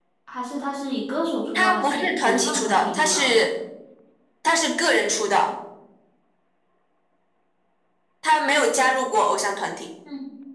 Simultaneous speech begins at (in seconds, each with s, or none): 1.5 s